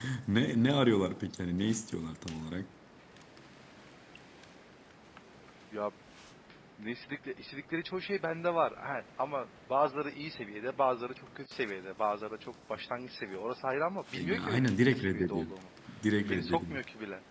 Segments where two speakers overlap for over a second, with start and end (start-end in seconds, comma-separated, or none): 14.2-15.5